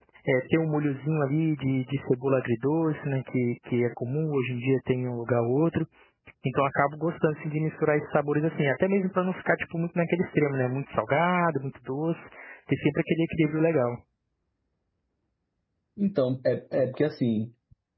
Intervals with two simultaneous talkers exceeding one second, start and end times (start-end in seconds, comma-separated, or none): none